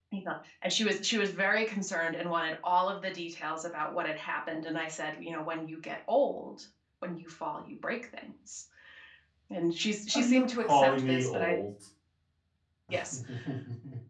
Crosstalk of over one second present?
Yes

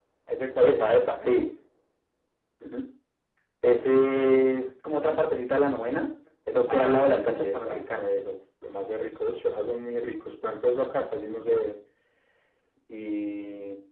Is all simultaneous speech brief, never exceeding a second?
No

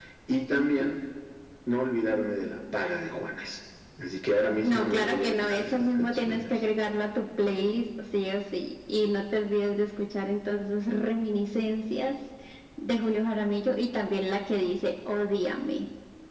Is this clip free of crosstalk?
No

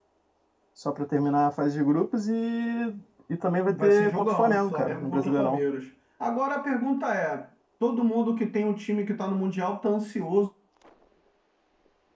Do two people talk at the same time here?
Yes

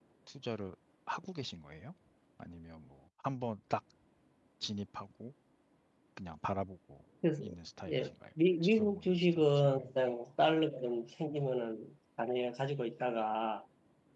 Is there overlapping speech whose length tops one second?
Yes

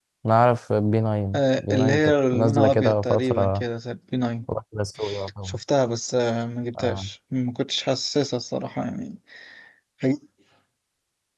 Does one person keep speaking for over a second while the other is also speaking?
Yes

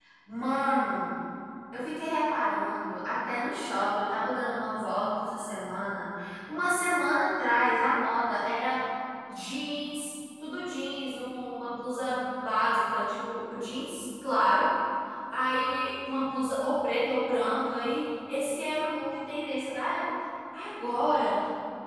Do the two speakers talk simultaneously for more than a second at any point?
No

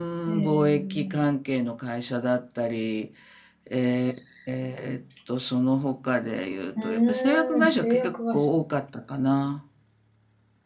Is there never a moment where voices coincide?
No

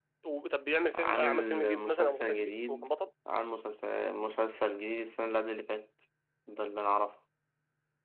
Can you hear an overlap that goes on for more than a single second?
Yes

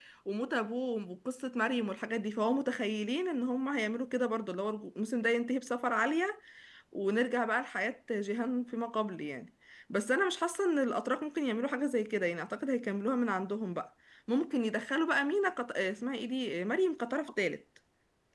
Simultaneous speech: No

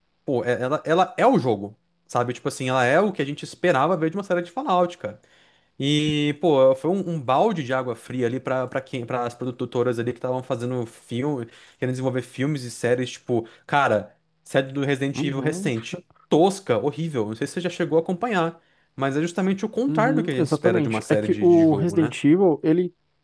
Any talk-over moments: Yes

